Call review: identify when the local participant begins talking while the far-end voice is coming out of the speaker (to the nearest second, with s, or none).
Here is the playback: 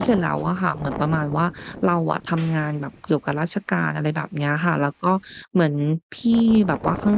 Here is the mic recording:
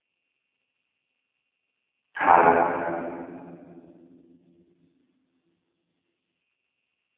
2 s